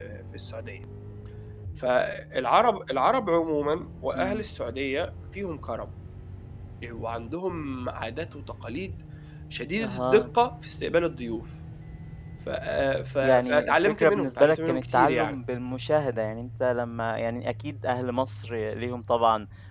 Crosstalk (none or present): present